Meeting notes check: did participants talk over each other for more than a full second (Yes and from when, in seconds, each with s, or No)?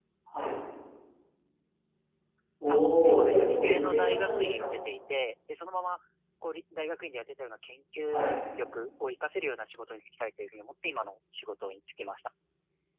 Yes, from 2.7 s